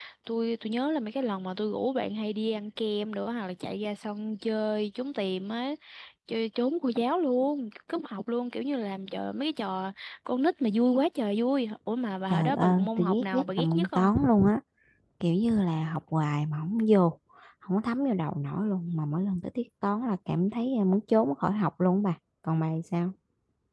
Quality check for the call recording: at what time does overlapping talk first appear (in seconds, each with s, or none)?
12.3 s